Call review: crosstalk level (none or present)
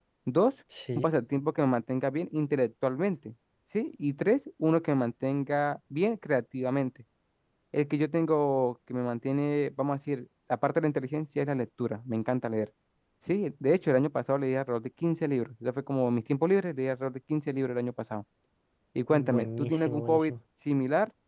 present